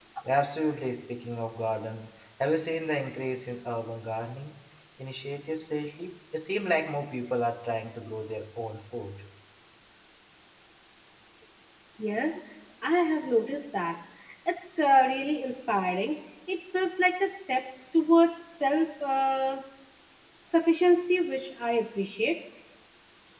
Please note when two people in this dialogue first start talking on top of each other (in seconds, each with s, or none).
none